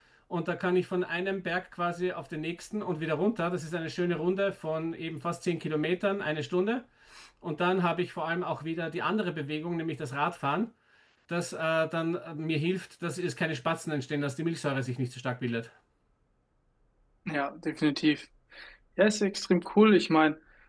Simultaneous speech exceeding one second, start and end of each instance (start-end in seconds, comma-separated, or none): none